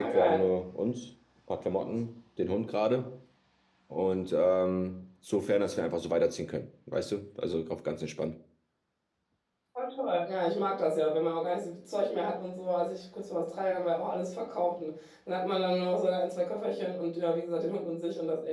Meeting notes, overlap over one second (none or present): none